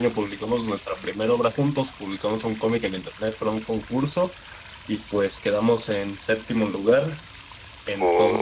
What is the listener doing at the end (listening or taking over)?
listening